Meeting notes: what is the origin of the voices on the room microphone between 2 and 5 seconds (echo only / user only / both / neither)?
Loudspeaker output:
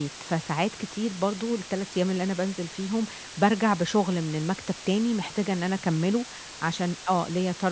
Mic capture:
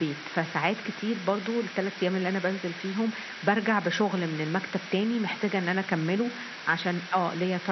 echo only